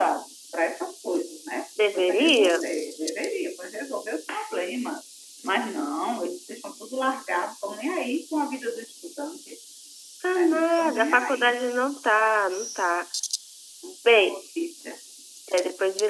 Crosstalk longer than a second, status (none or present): present